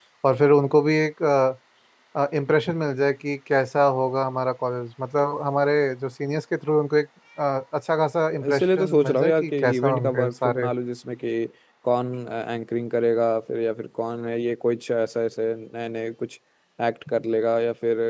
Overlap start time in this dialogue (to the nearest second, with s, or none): 8 s